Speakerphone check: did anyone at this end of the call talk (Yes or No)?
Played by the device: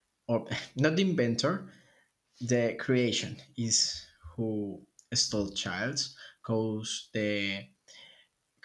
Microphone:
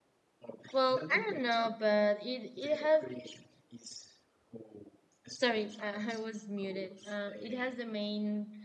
Yes